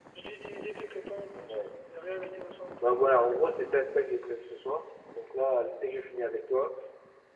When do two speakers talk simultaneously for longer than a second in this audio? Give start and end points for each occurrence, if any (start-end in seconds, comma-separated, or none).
none